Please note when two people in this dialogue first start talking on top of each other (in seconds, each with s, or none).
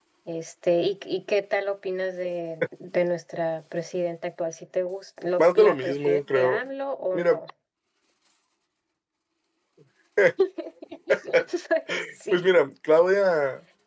5.4 s